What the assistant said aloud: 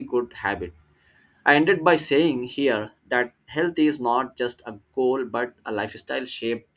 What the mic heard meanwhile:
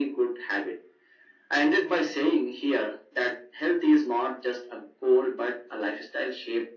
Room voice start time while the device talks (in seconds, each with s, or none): none